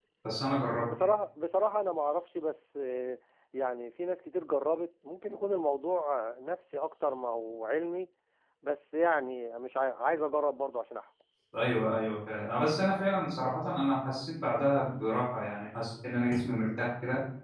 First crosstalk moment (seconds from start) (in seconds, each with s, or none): none